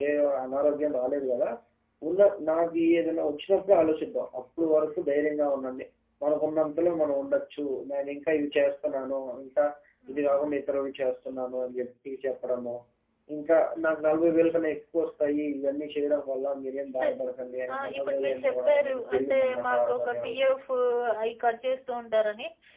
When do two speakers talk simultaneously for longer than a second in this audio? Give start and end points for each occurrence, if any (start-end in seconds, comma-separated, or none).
17.7-20.4